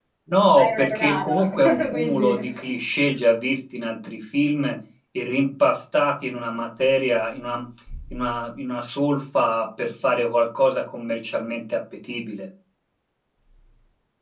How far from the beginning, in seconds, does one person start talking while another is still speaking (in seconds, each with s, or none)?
0.5 s